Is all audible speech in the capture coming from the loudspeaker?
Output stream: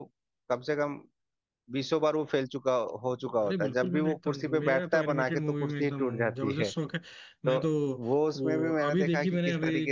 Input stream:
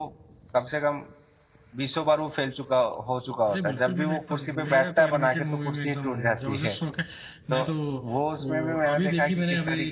Yes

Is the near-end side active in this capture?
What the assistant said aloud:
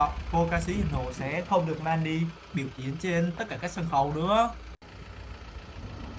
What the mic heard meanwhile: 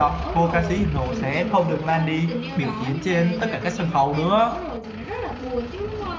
Yes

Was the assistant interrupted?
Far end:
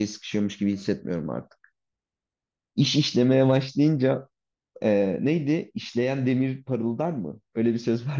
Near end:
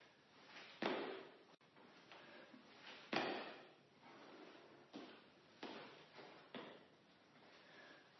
No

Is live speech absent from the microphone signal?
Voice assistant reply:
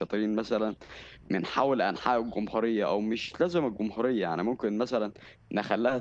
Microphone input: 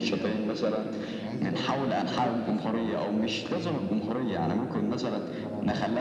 No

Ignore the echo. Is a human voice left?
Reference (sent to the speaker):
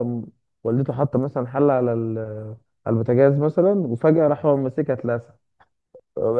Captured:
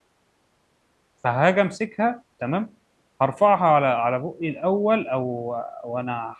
Yes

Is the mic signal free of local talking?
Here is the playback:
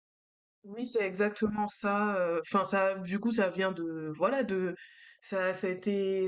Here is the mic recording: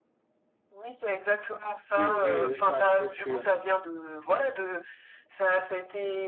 No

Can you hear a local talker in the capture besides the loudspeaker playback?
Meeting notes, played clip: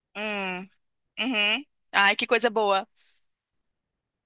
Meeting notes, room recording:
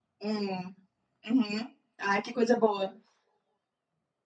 No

